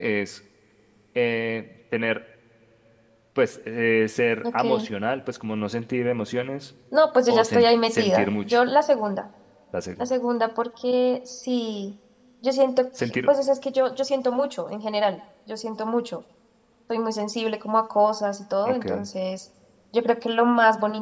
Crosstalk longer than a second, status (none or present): present